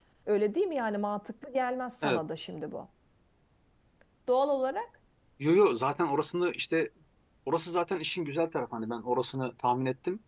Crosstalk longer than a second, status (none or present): none